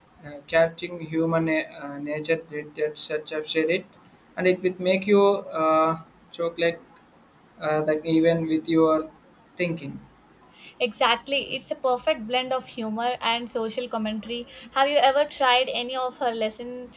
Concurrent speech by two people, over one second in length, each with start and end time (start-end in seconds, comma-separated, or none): none